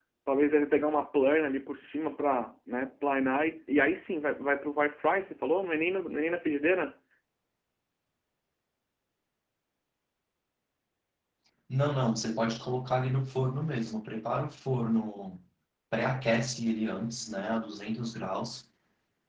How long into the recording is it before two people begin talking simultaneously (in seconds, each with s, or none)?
none